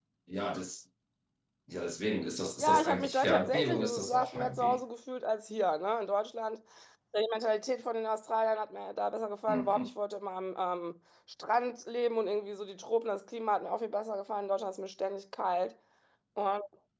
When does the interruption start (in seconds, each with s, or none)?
2.6 s